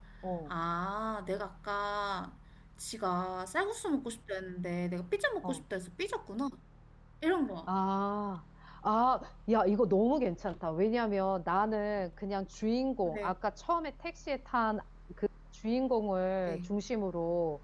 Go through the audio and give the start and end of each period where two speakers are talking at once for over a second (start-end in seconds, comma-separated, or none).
none